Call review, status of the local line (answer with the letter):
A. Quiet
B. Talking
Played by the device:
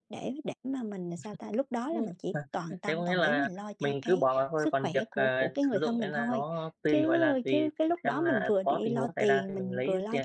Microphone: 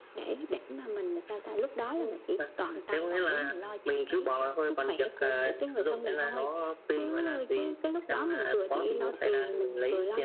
A